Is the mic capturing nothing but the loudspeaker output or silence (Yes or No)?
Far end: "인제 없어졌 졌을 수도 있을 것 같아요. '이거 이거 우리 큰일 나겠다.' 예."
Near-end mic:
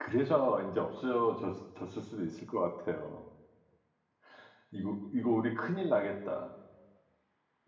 Yes